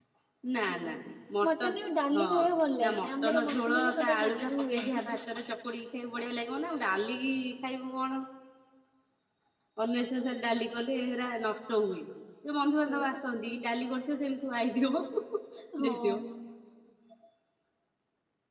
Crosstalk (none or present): present